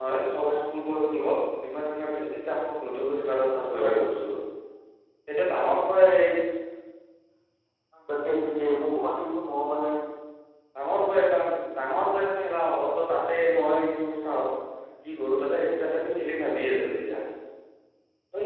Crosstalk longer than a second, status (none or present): none